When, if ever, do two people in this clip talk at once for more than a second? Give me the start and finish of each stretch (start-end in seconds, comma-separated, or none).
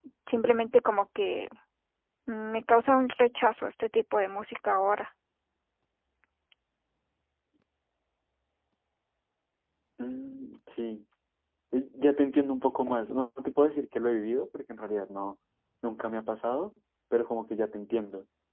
none